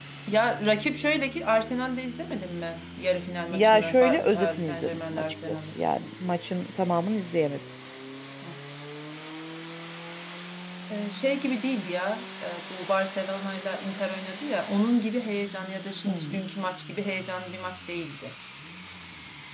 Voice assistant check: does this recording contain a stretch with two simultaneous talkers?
Yes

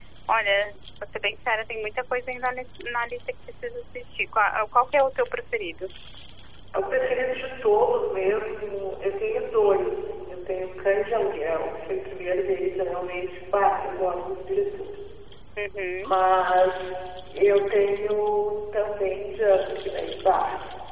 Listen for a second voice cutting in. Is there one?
No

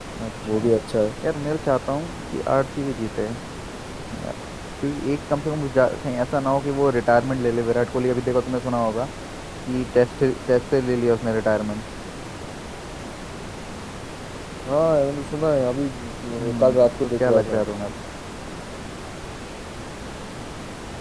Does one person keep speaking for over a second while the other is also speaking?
Yes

